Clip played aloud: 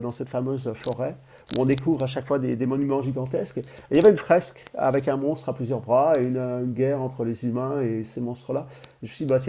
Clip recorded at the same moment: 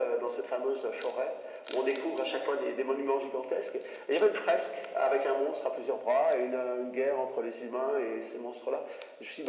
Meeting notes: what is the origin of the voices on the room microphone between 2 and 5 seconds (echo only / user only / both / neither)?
echo only